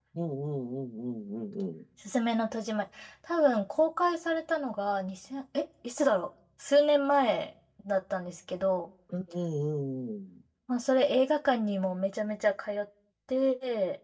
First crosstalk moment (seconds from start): none

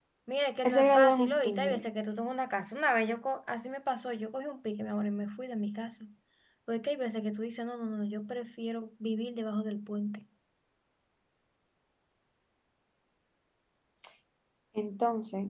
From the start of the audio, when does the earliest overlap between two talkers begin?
0.6 s

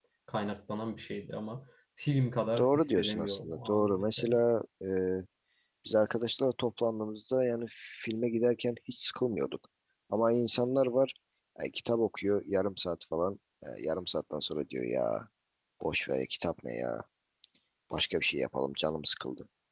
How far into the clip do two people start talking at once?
2.6 s

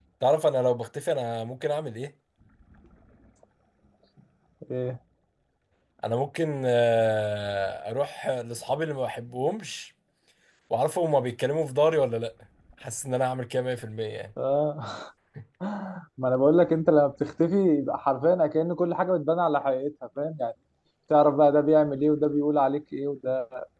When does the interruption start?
none

